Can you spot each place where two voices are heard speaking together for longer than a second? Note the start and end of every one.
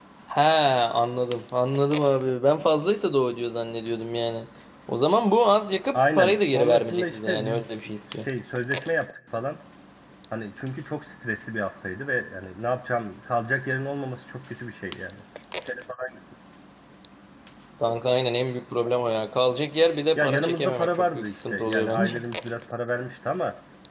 5.9-7.6, 20.1-22.2

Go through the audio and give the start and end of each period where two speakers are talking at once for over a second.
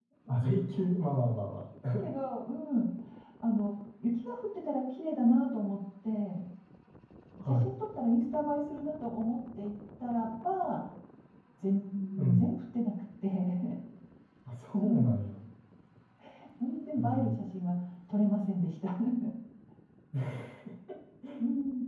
none

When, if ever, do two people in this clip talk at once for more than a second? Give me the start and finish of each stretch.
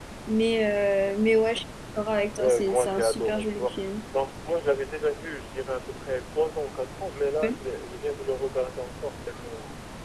2.4-3.7

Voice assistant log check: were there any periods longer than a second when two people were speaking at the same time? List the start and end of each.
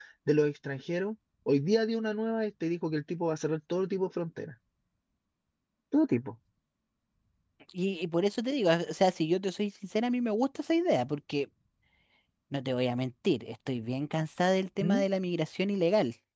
none

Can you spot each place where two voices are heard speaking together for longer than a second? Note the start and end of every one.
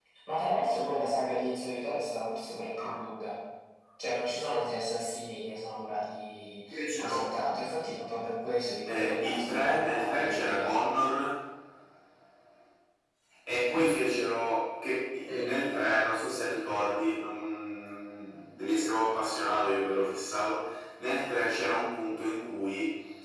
8.9-10.7

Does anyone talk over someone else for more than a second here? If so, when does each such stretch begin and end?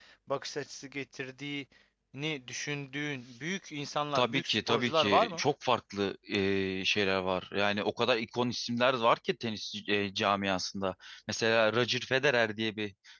4.2-5.4

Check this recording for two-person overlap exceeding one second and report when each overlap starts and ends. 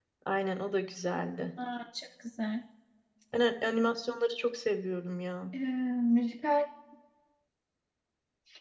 none

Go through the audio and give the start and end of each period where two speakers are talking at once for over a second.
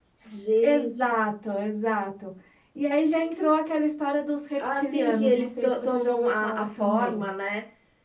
4.6-7.2

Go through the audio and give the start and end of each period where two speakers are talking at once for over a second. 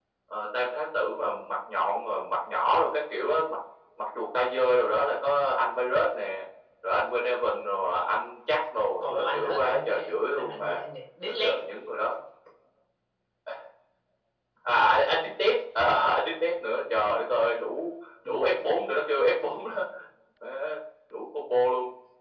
9.0-10.8

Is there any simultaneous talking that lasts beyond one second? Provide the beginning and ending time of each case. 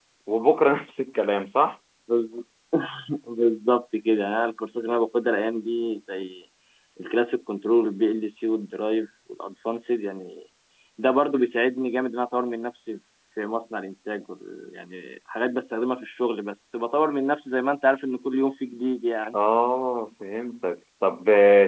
none

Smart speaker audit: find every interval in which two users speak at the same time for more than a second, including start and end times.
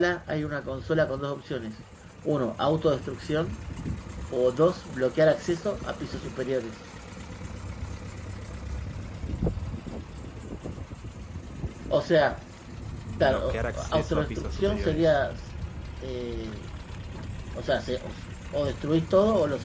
13.2-15.1

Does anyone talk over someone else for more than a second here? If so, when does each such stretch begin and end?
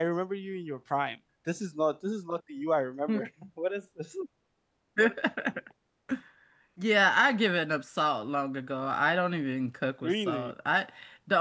none

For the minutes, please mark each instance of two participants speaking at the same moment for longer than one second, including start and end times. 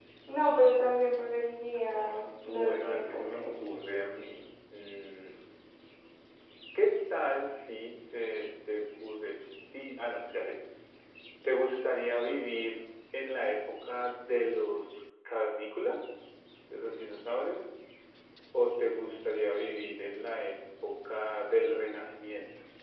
2.2-3.4

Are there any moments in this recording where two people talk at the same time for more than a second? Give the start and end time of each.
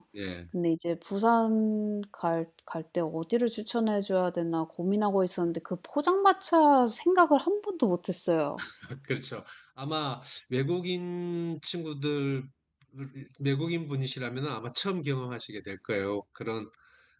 none

